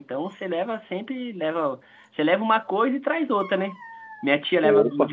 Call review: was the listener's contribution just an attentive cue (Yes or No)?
Yes